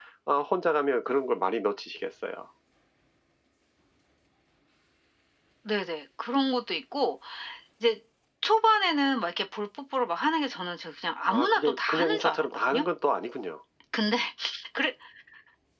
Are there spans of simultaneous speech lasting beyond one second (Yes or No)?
Yes